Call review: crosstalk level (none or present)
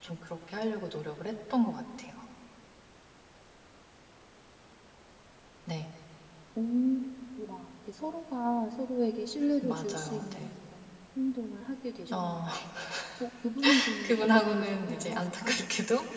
present